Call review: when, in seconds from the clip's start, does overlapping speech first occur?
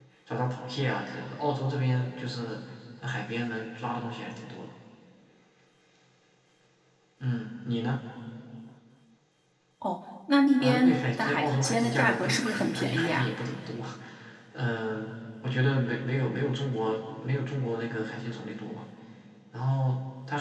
10.6 s

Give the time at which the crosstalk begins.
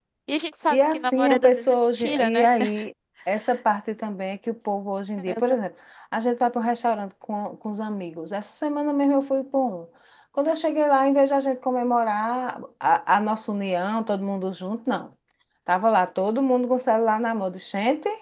0.7 s

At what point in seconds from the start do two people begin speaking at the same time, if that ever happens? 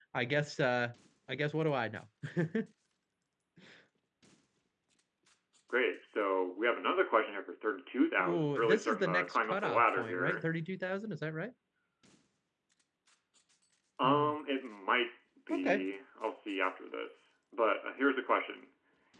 8.2 s

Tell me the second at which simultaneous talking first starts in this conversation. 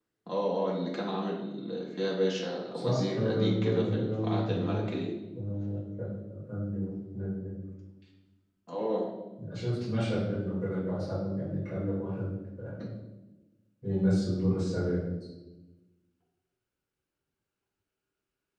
2.7 s

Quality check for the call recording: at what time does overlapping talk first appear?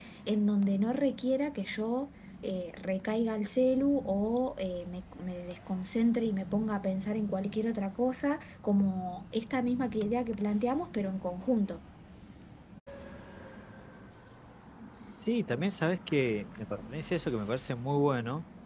none

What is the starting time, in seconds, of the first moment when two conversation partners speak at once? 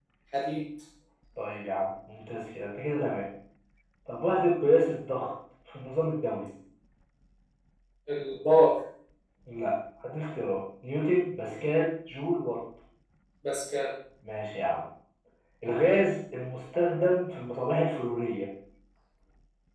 none

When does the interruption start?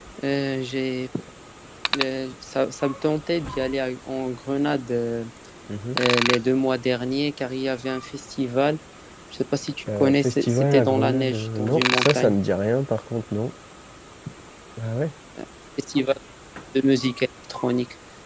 9.9 s

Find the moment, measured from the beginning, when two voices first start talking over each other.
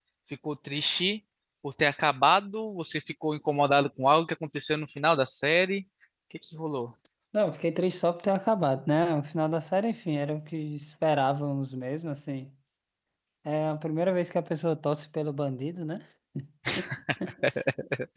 none

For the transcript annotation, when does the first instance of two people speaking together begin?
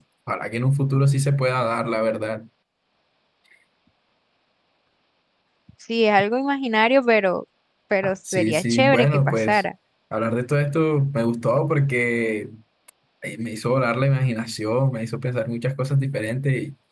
8.3 s

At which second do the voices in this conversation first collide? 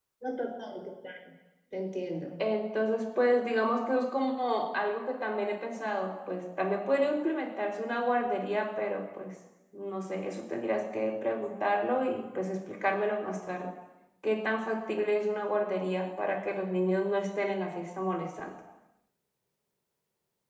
none

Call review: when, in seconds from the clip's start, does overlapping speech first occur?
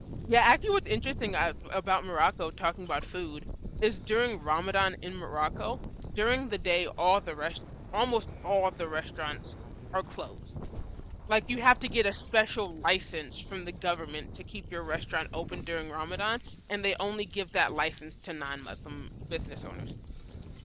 none

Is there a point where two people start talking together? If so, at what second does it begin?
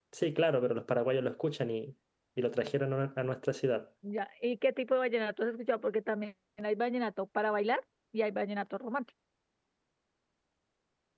none

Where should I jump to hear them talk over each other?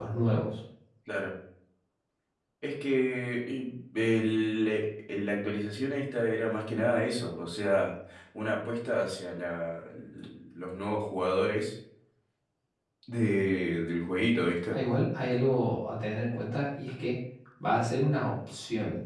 none

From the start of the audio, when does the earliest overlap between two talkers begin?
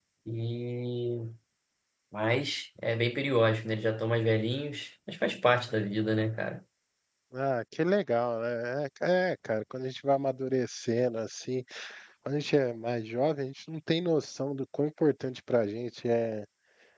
none

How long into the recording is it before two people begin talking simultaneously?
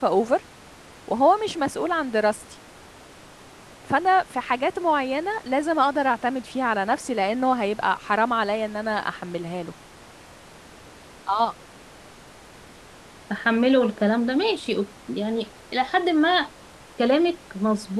none

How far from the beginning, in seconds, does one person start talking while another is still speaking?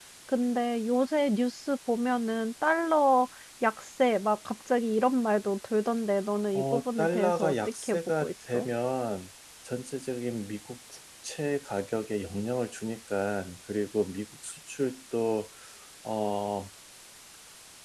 6.5 s

